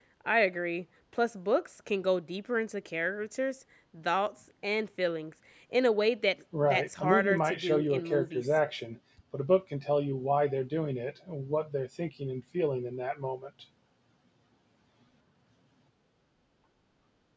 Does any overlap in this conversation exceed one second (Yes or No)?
Yes